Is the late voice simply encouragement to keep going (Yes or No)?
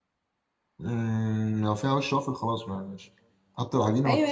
No